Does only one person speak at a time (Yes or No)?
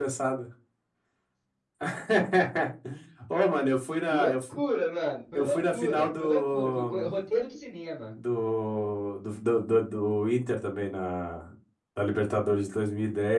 No